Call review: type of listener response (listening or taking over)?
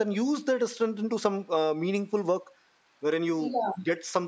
listening